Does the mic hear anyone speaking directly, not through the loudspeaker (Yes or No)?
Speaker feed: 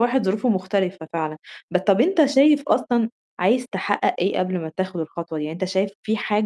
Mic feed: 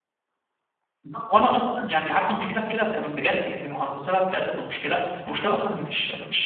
Yes